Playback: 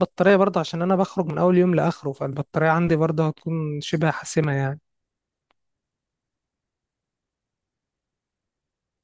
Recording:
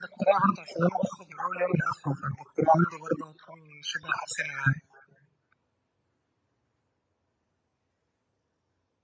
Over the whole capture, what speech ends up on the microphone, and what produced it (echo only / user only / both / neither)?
echo only